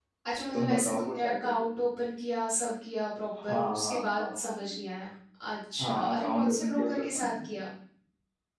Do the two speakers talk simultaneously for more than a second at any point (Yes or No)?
Yes